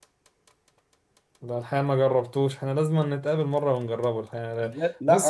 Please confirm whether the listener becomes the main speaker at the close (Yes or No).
Yes